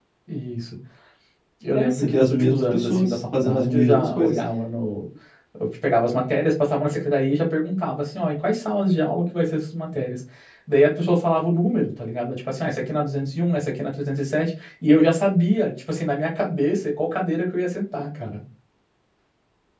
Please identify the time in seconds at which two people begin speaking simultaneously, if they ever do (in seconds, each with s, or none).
1.7 s